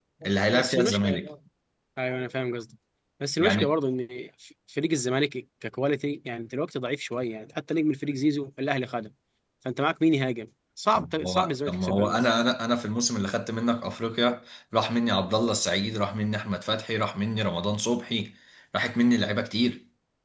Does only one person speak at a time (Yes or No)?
No